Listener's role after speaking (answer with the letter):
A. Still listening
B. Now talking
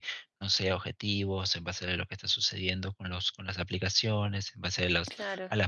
A